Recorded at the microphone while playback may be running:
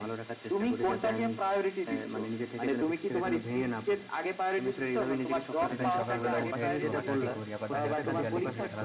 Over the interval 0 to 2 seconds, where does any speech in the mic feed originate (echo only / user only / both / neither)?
echo only